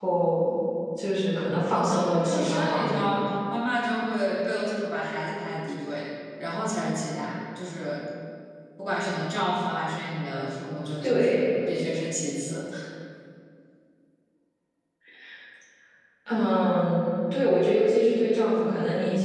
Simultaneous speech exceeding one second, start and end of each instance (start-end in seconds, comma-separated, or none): 1.7-3.2